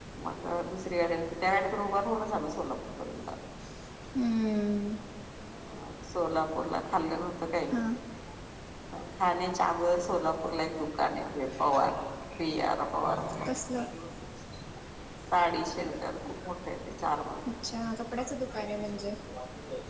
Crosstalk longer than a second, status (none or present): none